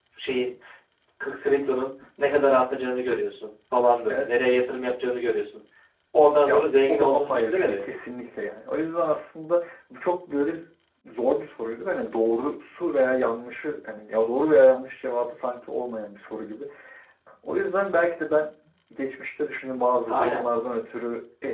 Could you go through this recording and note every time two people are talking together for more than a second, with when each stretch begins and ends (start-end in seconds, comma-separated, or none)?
6.5-7.8